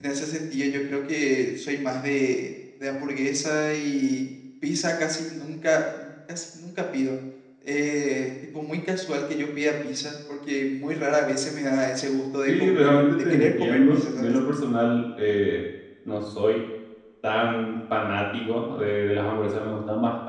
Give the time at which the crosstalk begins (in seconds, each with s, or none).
12.5 s